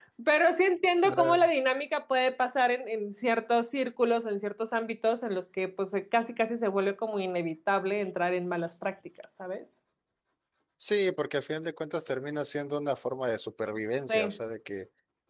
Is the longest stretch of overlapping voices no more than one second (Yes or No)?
Yes